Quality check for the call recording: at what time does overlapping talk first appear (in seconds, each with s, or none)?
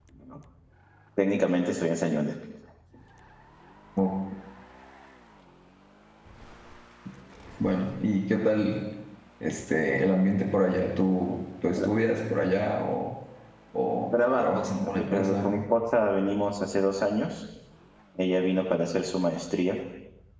14.1 s